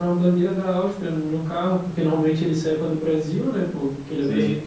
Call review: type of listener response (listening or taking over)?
listening